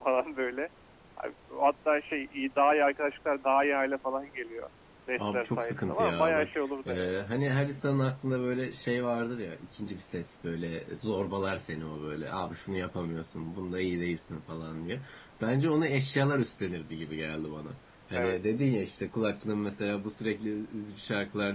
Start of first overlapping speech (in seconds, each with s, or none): 5.2 s